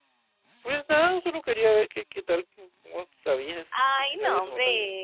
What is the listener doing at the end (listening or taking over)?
taking over